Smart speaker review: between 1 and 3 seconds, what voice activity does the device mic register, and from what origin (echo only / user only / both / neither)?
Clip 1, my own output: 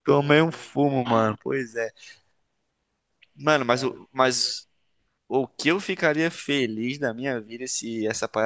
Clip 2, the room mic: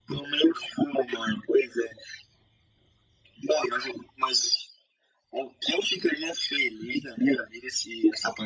echo only